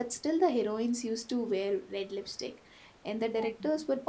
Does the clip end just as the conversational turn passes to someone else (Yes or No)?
No